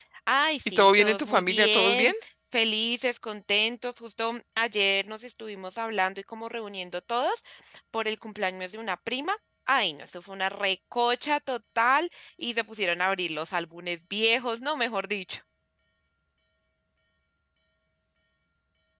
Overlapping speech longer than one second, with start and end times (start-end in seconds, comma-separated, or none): 0.7-2.1